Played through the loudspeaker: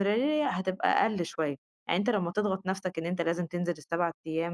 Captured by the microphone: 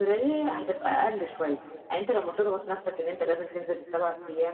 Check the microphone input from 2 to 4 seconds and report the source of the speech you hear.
echo only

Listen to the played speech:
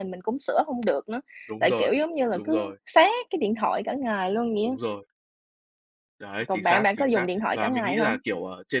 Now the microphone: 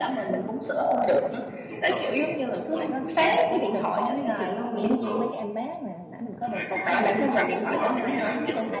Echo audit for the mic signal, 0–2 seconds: echo only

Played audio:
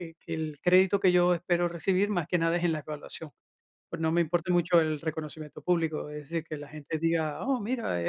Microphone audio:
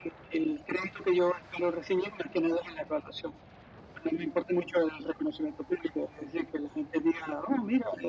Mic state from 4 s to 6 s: echo only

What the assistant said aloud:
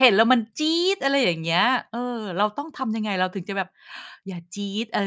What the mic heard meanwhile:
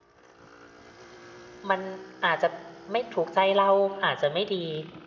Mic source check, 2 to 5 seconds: user only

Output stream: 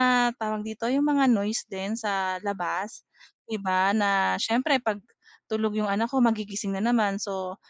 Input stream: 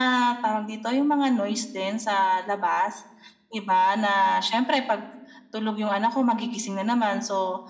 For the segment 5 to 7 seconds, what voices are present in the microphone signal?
echo only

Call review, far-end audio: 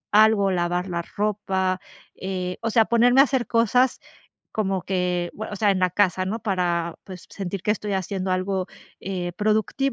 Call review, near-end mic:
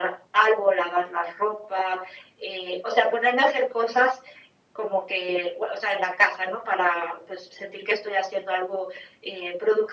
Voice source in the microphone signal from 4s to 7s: echo only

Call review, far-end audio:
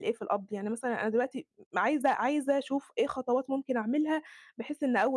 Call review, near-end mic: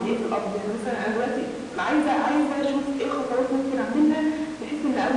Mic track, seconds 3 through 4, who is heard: echo only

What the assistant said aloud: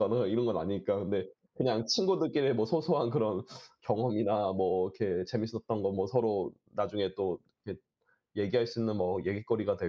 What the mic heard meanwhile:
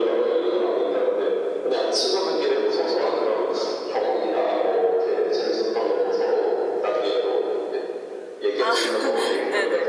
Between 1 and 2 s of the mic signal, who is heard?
echo only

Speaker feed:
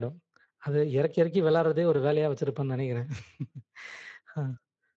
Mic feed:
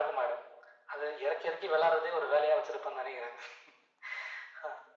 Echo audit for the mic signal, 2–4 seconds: echo only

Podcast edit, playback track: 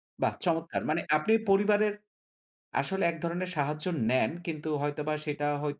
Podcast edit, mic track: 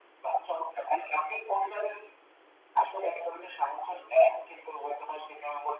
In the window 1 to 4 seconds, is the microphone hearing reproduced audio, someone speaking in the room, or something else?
echo only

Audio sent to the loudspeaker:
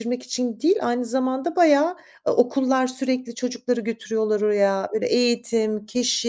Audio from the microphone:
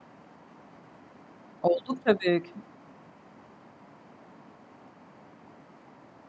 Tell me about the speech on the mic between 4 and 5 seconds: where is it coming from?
neither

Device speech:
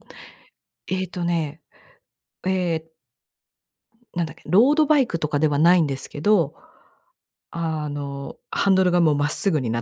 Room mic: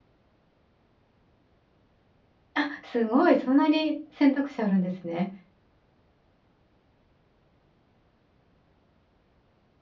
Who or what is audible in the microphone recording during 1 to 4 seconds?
user only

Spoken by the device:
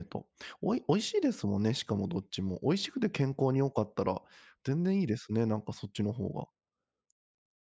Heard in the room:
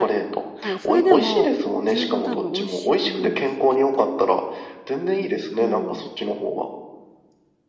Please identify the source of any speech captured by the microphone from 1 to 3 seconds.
both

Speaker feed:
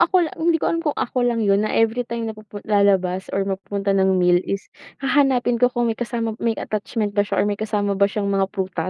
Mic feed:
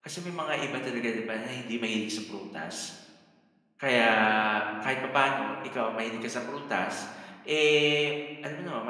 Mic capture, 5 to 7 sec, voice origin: user only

